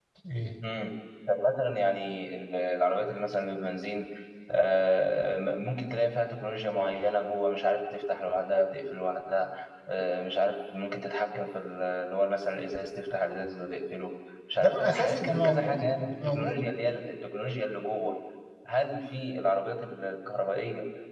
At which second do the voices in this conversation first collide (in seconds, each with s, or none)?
14.6 s